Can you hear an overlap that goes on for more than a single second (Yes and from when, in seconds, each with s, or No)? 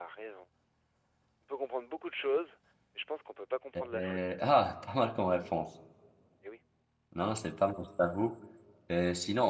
No